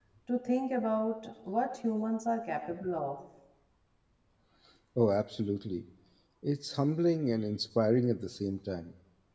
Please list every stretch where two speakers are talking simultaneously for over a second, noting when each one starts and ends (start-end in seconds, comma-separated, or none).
none